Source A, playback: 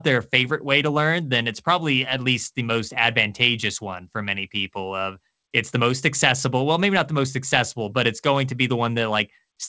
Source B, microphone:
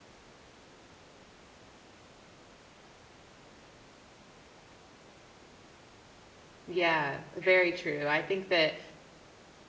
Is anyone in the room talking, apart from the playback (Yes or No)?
Yes